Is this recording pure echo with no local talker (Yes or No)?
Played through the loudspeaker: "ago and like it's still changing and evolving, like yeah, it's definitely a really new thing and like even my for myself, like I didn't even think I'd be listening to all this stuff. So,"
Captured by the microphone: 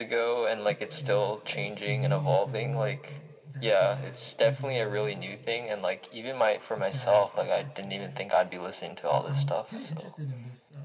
No